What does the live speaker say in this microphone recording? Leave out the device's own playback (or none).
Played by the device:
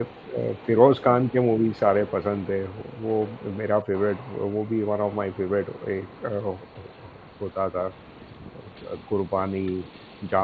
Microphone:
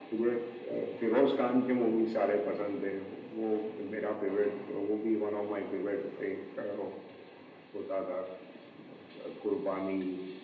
none